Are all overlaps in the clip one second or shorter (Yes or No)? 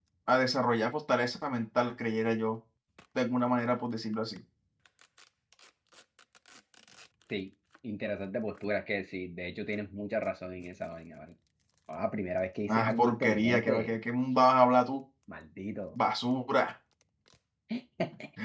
No